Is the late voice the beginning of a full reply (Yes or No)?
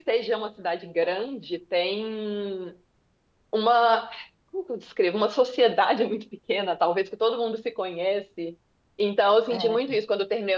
No